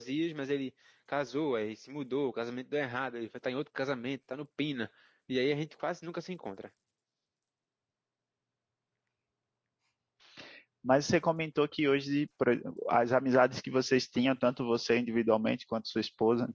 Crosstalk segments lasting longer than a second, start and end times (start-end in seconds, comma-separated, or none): none